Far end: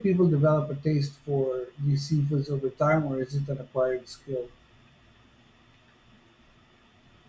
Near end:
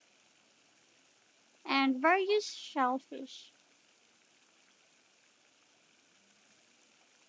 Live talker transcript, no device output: and various shellfish.

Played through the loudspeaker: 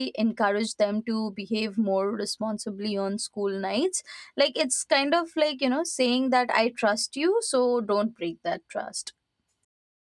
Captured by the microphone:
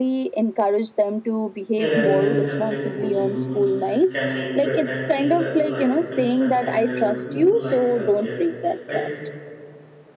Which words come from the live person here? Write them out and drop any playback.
uh, rather than just enforcing rules can make bedtime feel less like punishment and uh, more like self care, right?

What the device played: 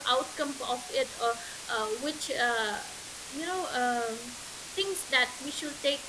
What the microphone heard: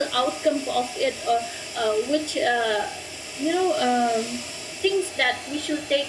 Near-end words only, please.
none

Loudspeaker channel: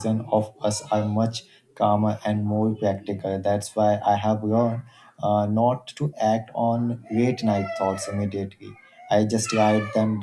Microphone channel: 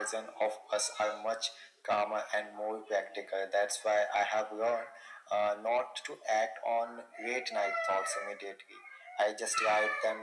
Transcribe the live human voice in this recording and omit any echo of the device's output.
none

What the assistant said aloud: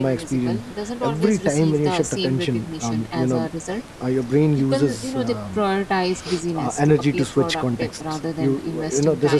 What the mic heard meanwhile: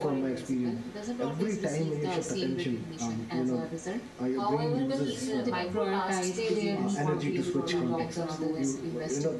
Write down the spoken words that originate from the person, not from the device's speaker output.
However, these uh, micro tasks they rarely contribute to long-term goals.

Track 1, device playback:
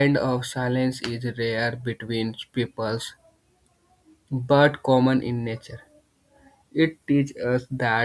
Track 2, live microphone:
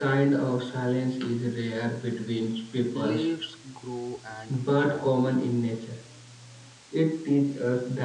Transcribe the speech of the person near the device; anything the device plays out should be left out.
leaves grow and fall,

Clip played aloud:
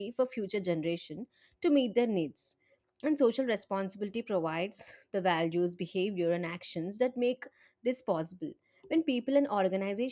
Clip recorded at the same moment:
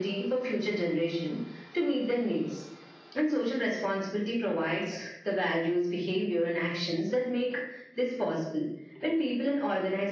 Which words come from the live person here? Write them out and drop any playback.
none

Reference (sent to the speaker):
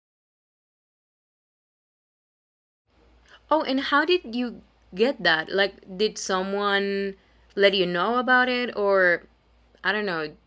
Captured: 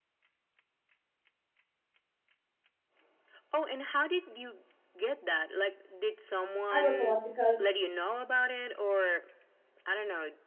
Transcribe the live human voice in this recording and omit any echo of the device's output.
I work a lot because

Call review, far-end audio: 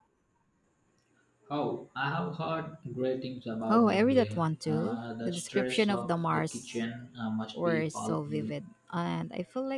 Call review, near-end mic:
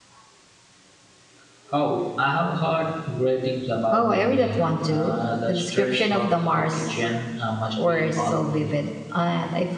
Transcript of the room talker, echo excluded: none

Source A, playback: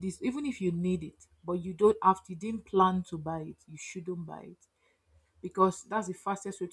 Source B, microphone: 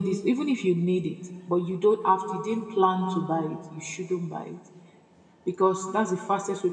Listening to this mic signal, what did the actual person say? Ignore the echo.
none

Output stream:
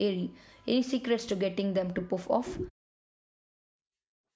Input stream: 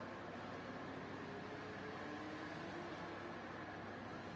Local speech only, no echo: none

